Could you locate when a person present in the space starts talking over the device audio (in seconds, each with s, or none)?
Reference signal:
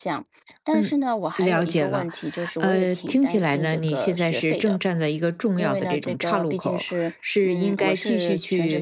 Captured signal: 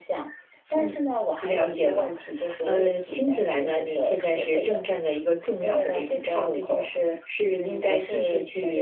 none